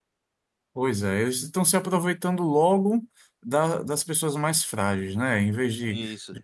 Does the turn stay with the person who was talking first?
Yes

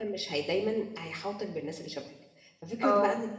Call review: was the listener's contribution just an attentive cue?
Yes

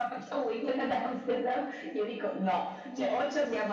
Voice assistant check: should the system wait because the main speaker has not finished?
Yes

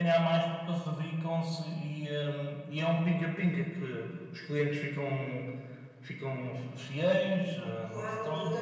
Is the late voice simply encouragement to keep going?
No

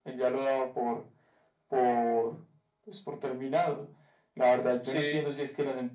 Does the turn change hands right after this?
No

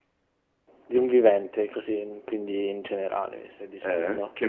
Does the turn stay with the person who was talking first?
No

